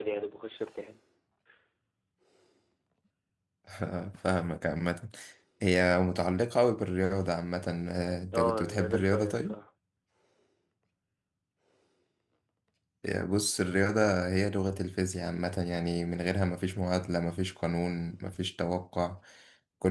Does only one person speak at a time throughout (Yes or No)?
No